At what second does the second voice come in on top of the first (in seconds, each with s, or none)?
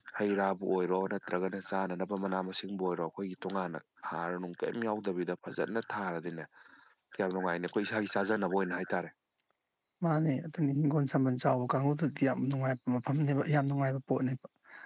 none